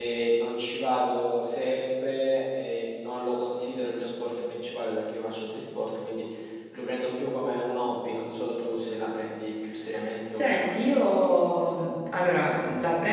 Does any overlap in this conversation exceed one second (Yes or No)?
No